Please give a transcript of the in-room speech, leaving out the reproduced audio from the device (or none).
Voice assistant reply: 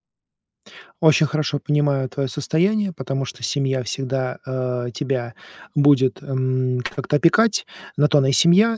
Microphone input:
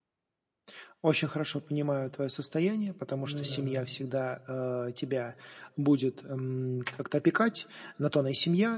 Ну да, да.